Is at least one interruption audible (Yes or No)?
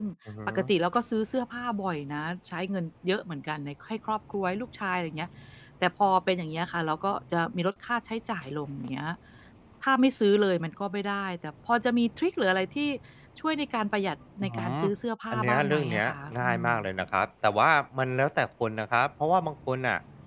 Yes